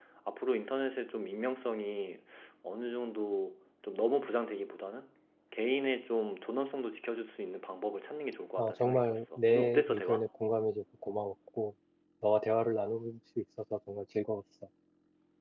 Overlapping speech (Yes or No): Yes